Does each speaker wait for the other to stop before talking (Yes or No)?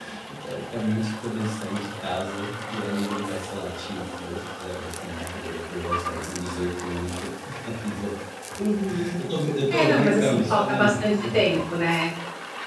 No